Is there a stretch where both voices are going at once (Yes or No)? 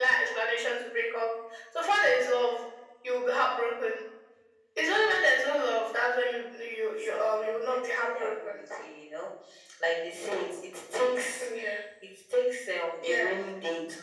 Yes